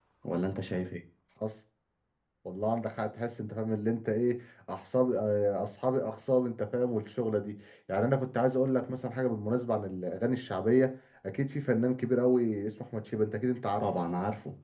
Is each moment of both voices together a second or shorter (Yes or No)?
Yes